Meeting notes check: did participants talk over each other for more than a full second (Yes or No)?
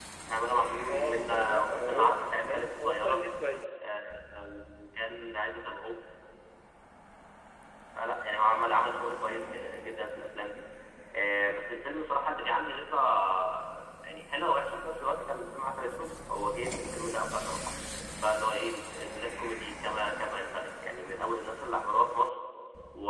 Yes